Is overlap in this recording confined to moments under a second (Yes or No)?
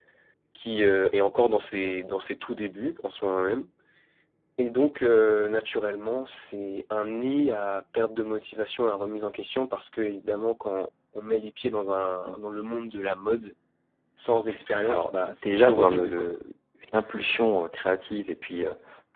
No